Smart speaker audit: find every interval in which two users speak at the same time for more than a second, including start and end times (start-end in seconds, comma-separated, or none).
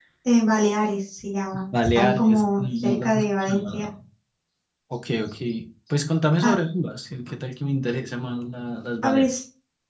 1.8-3.9